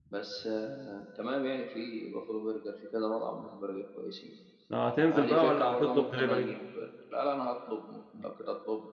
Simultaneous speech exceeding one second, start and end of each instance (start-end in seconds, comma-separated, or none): 5.1-6.5